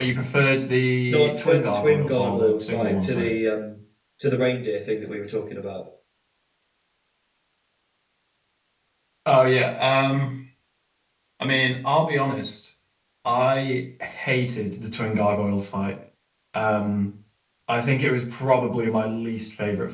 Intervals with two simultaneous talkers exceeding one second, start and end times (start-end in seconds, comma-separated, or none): 1.1-3.3